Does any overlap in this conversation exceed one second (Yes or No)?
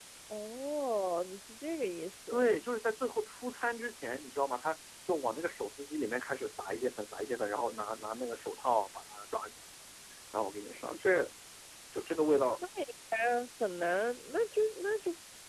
No